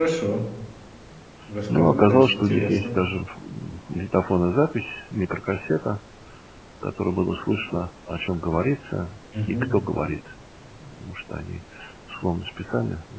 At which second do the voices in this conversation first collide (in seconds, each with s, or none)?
1.7 s